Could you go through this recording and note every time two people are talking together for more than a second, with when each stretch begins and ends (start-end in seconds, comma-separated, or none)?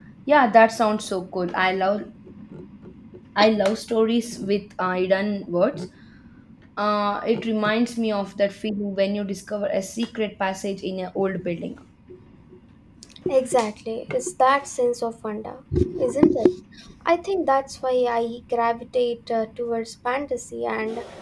none